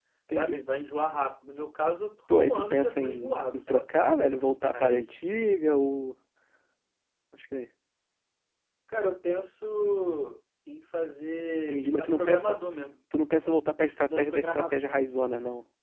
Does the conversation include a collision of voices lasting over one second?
Yes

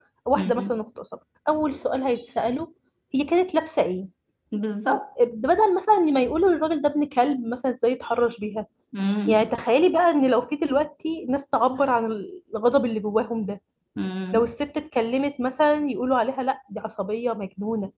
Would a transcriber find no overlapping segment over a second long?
Yes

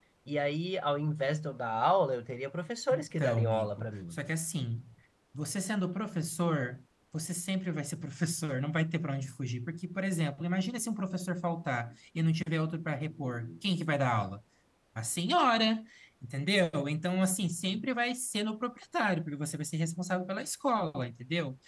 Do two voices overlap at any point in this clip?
Yes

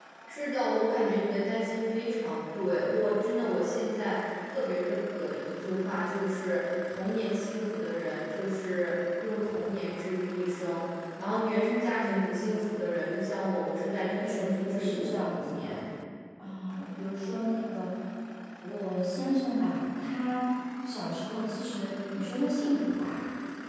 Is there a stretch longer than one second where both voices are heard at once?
Yes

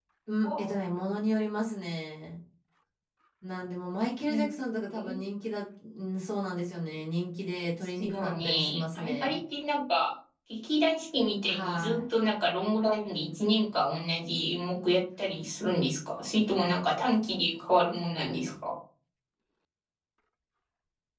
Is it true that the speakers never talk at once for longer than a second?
No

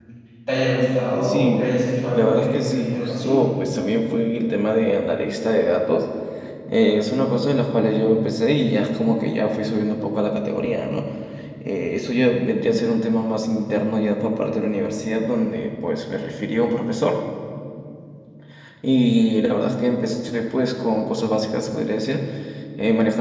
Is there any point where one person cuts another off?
Yes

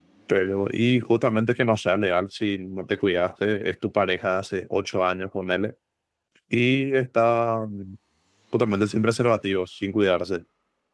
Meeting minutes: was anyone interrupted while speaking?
No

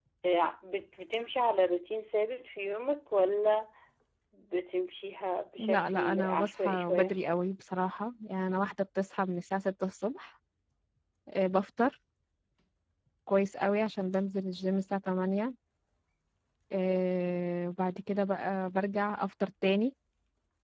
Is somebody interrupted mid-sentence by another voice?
Yes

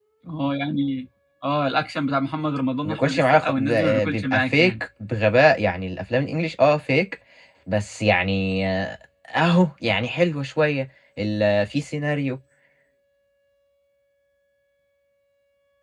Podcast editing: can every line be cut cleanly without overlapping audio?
No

